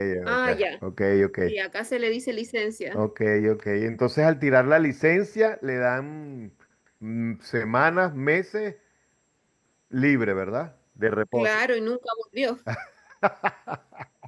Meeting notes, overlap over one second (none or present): none